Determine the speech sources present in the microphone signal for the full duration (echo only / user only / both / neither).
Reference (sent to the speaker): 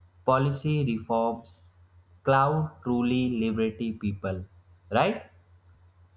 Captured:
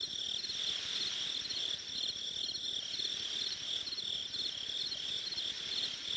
neither